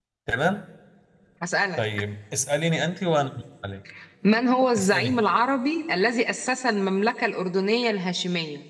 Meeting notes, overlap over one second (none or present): none